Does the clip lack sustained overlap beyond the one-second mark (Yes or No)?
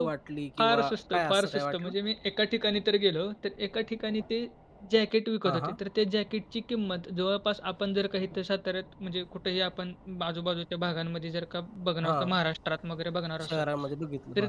No